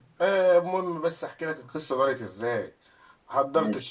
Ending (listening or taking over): listening